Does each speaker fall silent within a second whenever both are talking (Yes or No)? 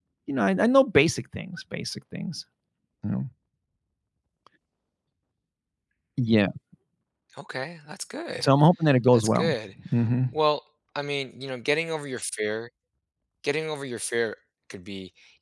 Yes